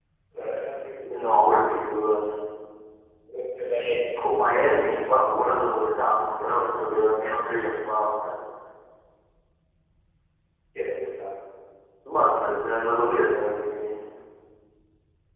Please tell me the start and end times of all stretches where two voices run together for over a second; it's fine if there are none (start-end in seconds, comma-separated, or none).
none